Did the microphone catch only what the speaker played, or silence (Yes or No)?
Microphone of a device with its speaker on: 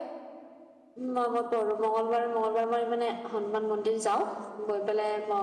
Yes